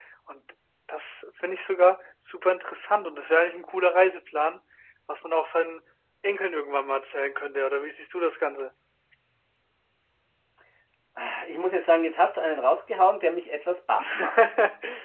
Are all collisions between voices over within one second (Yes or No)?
Yes